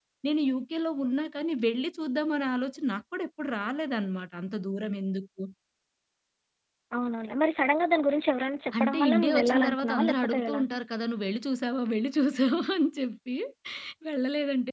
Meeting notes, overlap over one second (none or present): present